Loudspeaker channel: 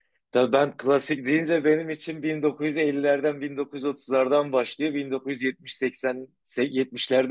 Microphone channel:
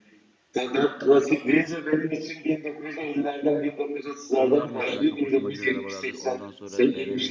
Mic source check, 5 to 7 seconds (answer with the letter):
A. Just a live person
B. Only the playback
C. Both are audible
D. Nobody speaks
C